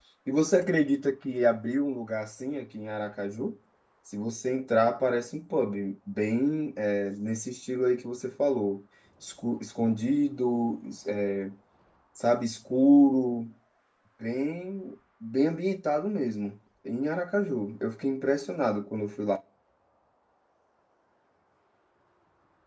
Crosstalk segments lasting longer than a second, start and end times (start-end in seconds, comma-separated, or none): none